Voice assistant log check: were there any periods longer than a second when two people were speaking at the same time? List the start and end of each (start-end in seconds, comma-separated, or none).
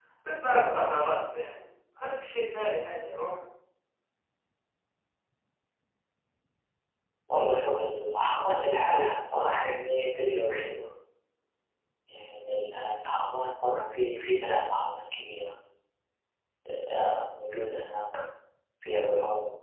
none